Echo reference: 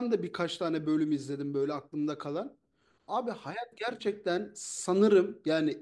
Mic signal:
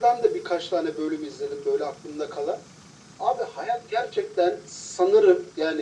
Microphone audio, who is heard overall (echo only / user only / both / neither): echo only